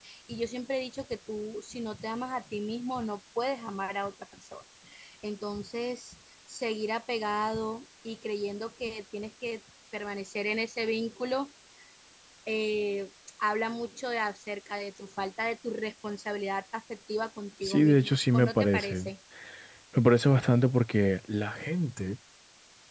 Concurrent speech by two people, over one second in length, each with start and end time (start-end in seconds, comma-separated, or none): 17.6-19.1